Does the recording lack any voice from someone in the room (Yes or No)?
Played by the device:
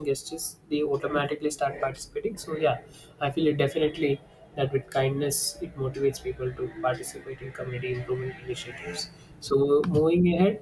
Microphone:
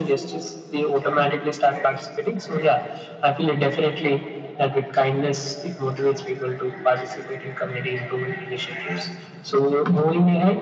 Yes